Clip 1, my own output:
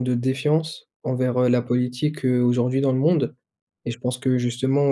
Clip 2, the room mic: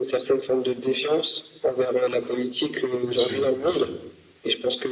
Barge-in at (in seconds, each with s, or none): 3.0 s